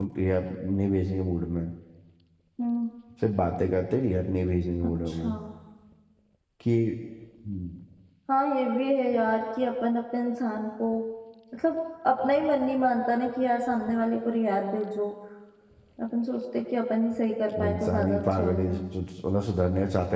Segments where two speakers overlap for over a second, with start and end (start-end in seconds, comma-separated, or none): 17.6-18.8